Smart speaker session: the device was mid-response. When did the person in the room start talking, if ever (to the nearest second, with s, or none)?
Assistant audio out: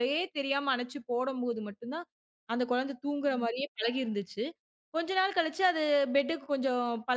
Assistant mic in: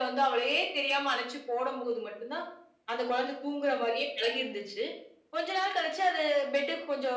none